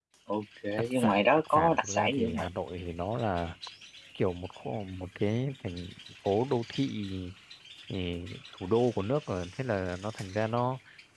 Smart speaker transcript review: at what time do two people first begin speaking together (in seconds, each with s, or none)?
0.9 s